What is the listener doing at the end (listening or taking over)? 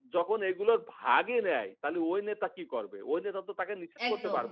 listening